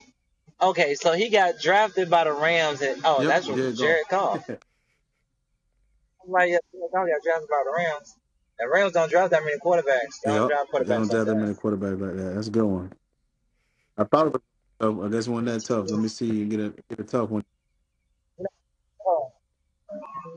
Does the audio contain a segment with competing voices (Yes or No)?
Yes